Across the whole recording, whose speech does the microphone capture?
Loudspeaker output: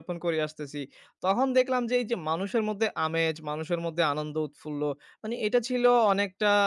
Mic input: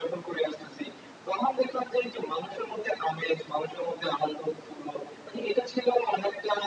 echo only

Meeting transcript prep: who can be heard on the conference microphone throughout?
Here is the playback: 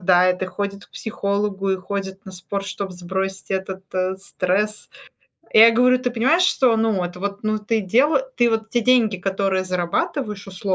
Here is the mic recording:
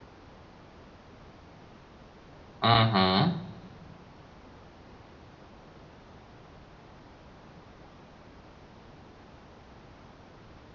user only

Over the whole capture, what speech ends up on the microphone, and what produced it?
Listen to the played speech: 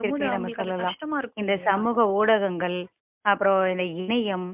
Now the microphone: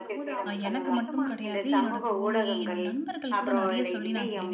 both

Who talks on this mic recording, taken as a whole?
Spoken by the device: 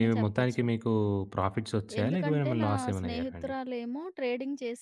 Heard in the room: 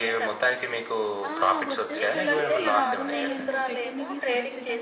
both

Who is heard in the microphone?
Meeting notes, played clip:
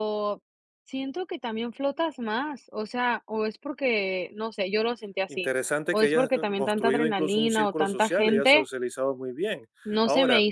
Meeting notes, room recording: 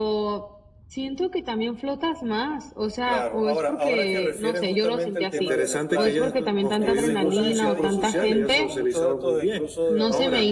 both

